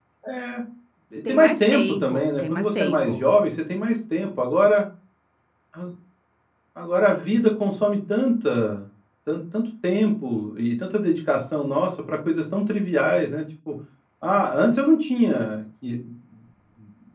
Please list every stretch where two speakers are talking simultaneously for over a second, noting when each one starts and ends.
1.3-3.2

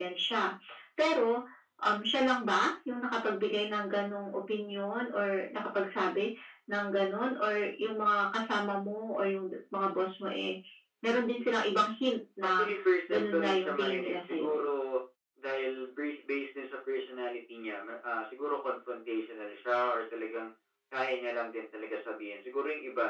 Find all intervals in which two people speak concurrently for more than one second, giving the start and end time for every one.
13.1-14.6

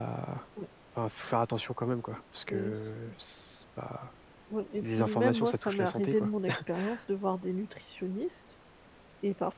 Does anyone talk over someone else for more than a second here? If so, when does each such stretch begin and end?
4.8-6.3

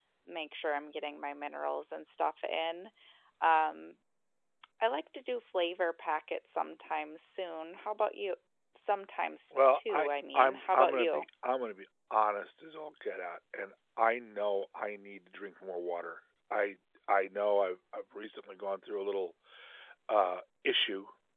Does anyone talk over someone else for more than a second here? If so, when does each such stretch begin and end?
9.5-11.2

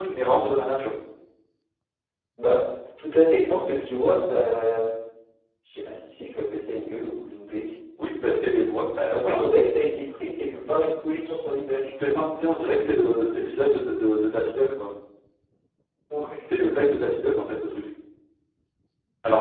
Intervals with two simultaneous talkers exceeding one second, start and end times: none

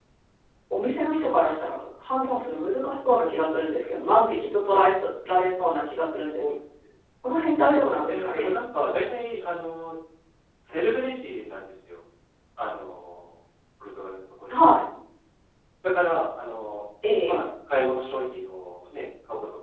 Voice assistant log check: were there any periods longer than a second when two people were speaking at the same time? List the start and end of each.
none

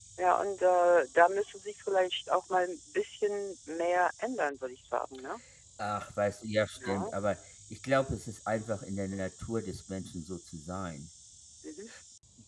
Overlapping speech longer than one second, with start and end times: none

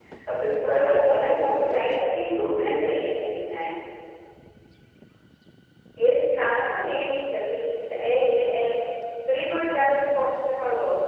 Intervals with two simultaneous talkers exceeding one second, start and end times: 0.7-1.9

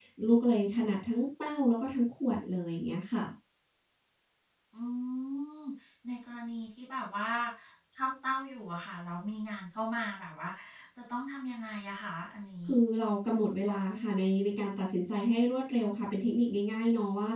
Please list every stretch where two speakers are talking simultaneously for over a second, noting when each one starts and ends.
none

